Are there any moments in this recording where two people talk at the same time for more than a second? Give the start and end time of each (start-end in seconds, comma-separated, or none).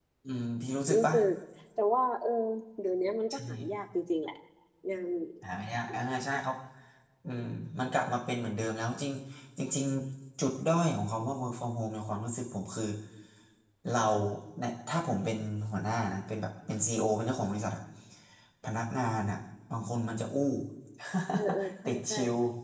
none